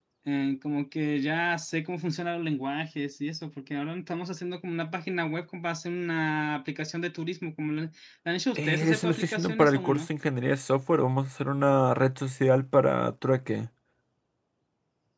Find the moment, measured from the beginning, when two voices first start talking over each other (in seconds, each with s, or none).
8.6 s